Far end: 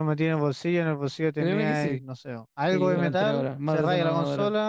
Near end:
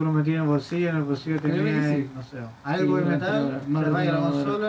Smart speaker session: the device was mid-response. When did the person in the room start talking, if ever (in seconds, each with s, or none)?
none